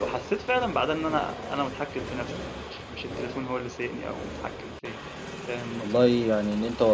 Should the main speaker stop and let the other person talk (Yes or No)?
Yes